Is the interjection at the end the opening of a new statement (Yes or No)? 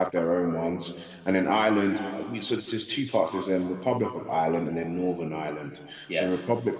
No